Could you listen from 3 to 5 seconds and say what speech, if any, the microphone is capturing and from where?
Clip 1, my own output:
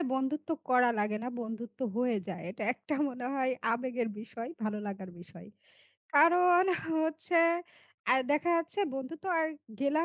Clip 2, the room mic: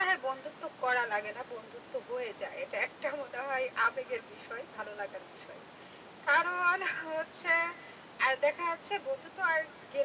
echo only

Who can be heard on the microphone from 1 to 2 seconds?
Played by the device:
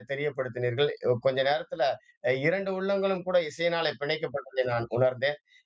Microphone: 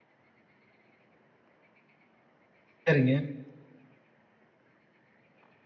neither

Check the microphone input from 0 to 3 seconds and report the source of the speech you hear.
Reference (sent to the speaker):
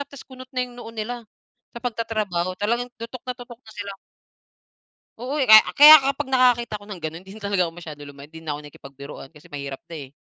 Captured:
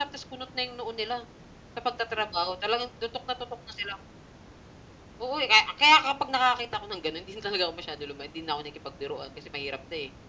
echo only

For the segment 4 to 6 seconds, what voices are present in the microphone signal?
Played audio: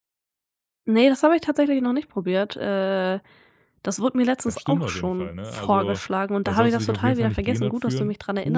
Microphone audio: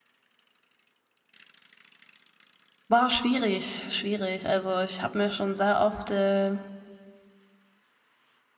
user only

